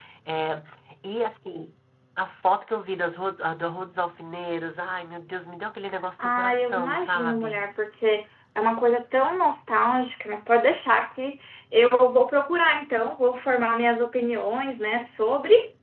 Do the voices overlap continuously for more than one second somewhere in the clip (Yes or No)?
Yes